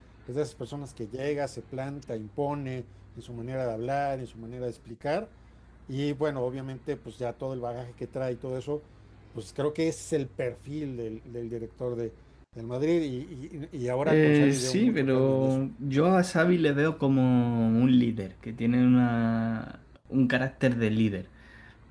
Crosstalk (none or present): present